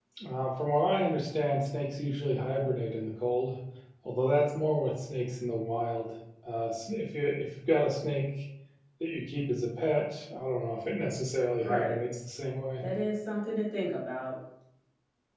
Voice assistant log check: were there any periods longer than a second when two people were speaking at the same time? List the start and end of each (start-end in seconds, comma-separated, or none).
none